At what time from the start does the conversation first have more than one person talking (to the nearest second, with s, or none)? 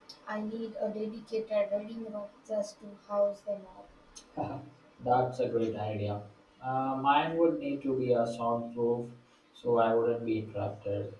none